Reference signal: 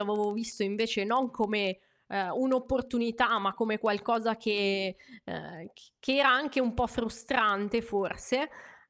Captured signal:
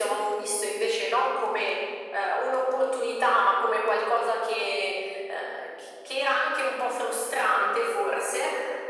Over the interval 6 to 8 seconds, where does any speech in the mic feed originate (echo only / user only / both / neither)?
echo only